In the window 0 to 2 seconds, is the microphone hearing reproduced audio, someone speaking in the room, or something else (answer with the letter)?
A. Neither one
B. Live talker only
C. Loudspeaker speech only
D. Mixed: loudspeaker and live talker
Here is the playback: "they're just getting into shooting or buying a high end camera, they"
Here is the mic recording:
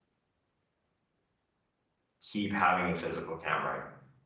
A